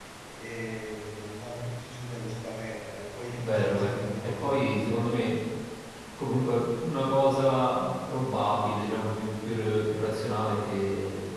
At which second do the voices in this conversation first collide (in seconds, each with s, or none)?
3.4 s